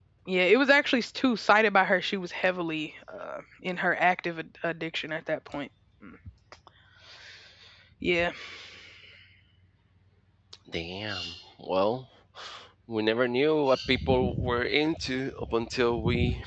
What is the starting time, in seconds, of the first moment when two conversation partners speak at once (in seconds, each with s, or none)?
none